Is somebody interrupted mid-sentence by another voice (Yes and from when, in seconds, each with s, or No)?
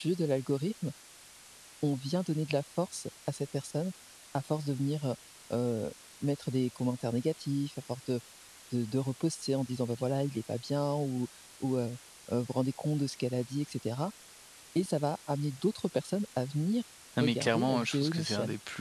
Yes, from 17.2 s